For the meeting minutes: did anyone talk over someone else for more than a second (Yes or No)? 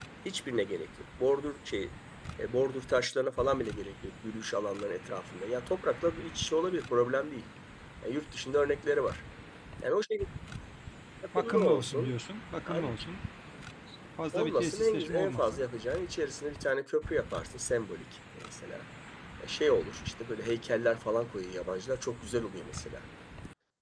Yes